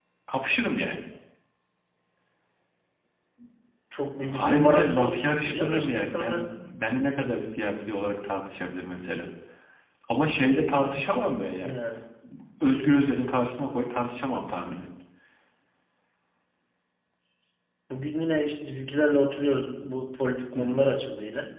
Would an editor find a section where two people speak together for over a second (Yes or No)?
Yes